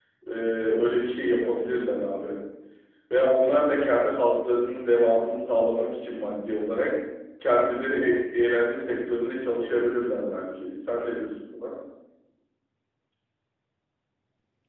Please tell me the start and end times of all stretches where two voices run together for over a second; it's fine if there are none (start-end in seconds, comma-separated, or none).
none